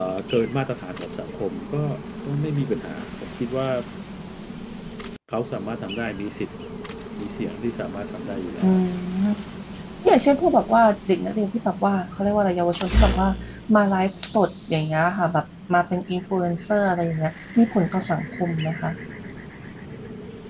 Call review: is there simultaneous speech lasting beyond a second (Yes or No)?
No